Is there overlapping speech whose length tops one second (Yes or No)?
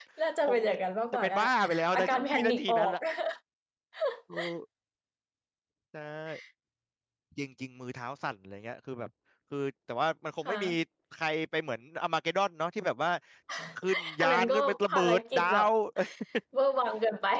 Yes